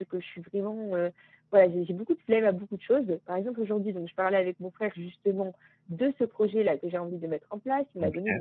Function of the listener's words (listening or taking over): listening